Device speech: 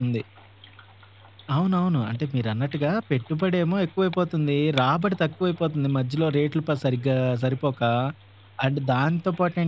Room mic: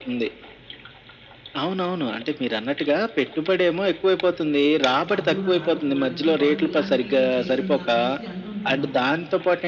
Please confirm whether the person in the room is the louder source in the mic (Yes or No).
No